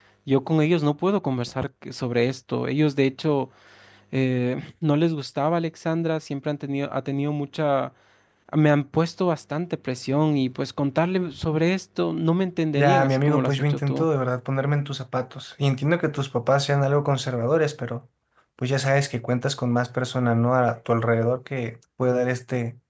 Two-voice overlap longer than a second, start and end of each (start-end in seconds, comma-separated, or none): 12.8-14.1